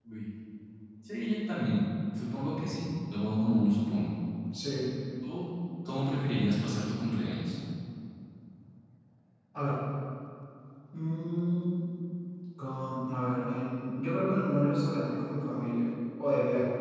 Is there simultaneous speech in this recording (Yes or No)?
No